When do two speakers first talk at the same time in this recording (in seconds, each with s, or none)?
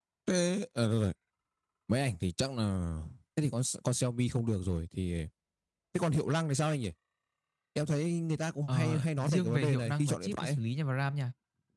8.7 s